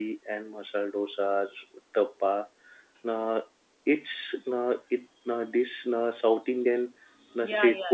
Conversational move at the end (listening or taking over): taking over